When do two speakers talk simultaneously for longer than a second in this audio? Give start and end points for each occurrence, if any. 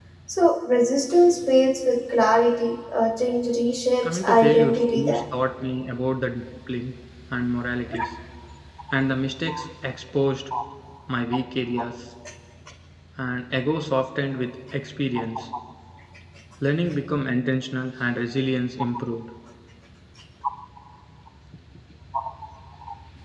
4.0-5.3

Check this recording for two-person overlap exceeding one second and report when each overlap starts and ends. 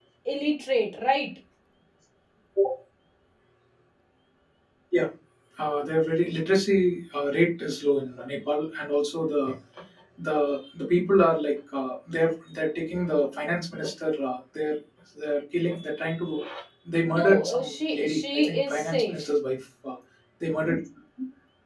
17.1-19.2

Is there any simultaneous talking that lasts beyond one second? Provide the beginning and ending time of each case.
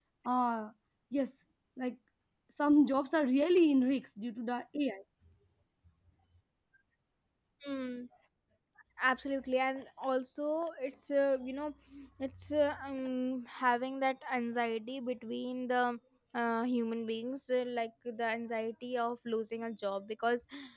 none

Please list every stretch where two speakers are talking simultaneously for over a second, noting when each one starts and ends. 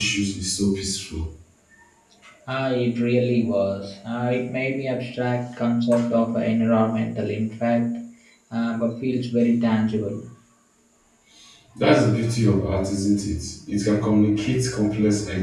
none

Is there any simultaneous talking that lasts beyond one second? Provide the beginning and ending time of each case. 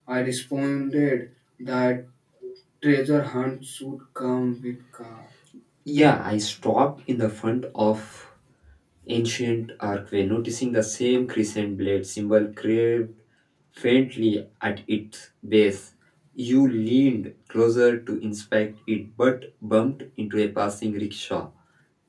none

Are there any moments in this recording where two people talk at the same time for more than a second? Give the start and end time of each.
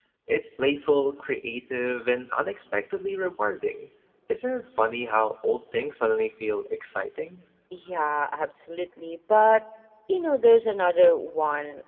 none

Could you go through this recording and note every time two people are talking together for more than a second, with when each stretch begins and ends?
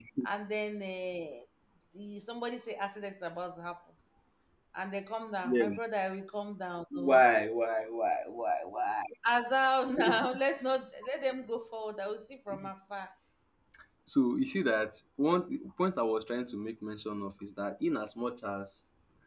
none

